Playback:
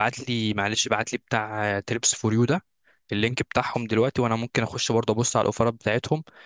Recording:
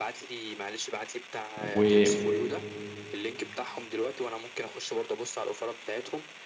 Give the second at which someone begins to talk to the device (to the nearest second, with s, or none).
2 s